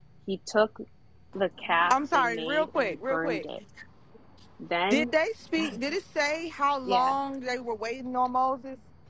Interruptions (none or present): present